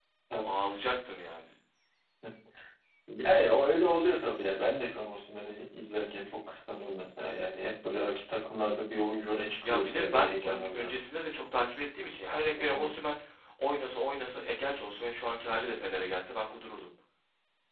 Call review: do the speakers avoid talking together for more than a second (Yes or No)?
No